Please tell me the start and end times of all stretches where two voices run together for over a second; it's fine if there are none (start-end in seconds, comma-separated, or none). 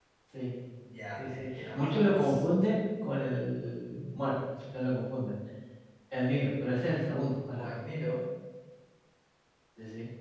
1.2-2.4